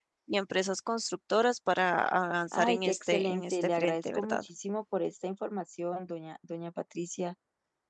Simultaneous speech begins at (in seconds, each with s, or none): 2.5 s